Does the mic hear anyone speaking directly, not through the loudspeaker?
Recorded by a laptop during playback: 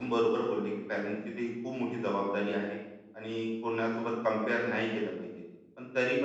Yes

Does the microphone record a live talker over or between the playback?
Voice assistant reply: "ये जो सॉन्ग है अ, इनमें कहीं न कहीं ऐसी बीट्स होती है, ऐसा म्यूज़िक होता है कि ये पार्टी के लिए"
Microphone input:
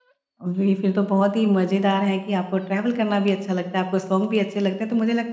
Yes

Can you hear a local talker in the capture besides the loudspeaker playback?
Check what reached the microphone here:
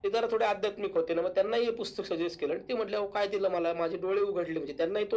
No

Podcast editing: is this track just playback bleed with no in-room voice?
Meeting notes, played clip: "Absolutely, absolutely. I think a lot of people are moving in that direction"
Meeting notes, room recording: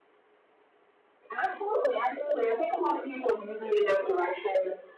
Yes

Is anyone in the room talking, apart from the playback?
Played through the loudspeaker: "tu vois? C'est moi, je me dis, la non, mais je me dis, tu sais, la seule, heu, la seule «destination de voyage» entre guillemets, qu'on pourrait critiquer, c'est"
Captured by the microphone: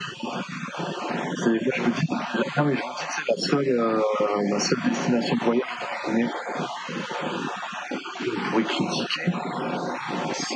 No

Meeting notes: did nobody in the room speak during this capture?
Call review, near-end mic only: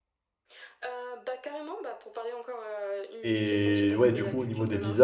No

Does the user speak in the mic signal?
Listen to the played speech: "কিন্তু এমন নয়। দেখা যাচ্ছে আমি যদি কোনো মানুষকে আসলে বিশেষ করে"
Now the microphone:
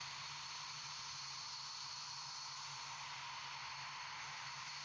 No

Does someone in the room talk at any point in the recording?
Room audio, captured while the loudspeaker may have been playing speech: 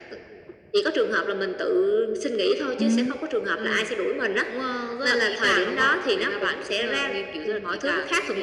Yes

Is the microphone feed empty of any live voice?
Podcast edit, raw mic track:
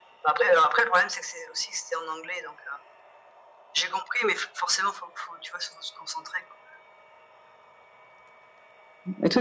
Yes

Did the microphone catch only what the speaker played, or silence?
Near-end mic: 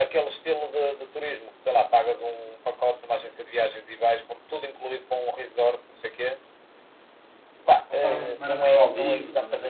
No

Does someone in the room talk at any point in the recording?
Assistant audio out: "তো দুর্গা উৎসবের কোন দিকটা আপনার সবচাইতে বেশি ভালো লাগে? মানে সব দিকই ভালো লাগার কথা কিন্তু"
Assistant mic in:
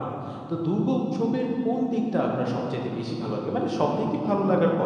No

